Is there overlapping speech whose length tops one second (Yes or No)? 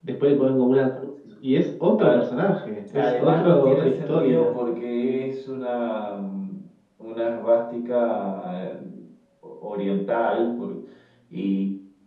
Yes